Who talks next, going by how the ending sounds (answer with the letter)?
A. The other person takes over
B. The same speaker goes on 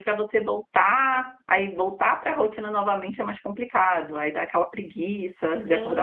A